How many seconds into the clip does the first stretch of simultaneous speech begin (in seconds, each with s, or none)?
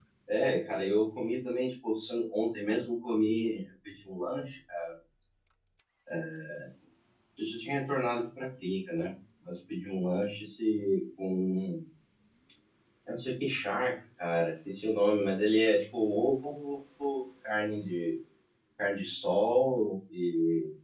none